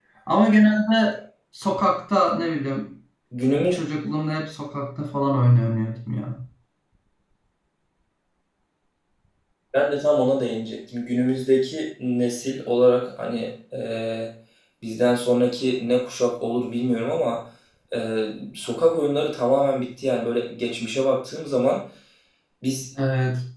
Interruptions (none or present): none